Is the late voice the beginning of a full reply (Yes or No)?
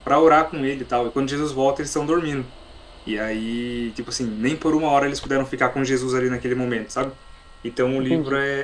No